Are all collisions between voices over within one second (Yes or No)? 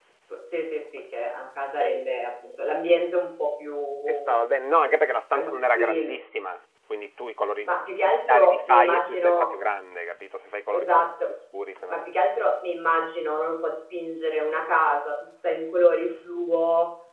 No